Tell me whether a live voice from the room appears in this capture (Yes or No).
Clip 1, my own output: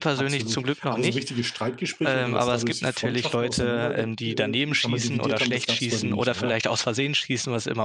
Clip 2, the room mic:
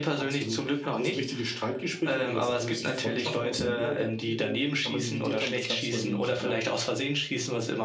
No